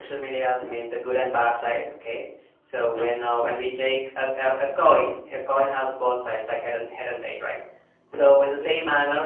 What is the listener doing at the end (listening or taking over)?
listening